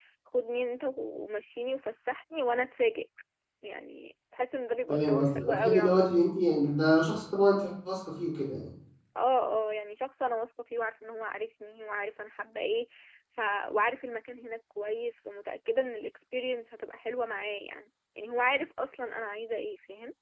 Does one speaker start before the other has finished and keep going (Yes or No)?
Yes